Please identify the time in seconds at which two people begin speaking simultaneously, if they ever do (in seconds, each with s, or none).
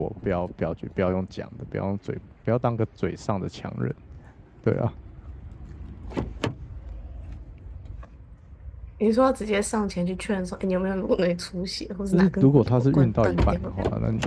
12.1 s